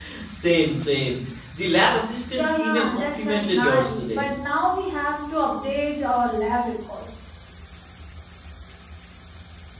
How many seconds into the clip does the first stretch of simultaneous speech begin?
2.4 s

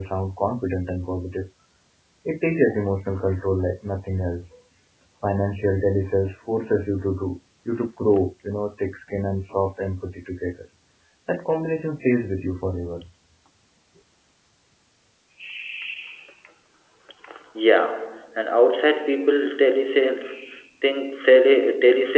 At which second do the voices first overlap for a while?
none

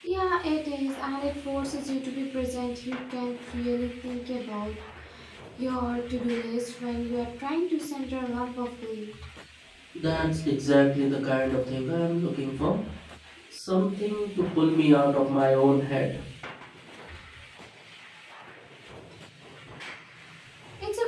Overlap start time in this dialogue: none

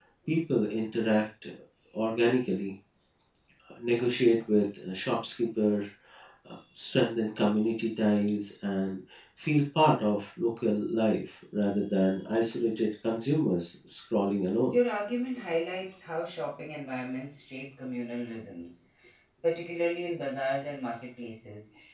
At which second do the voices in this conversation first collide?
none

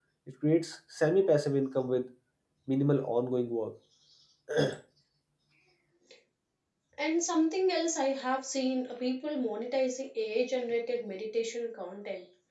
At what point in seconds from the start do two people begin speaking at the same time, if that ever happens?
none

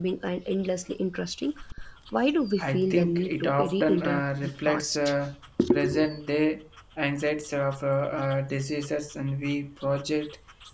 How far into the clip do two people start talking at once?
2.6 s

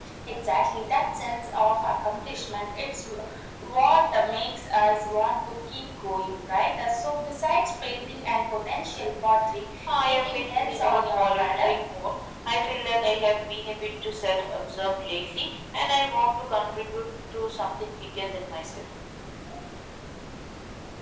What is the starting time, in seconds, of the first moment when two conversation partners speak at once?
9.9 s

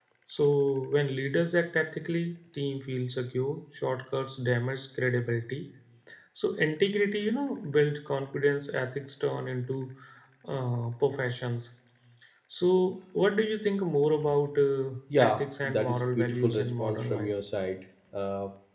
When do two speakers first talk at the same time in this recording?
15.1 s

